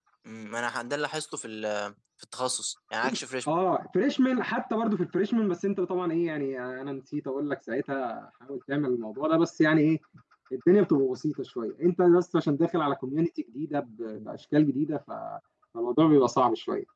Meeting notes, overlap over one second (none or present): none